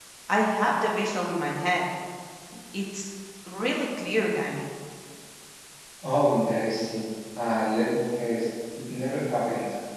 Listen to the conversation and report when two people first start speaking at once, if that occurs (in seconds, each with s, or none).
none